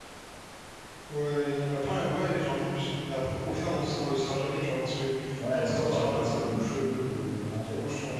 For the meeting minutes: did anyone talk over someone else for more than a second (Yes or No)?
Yes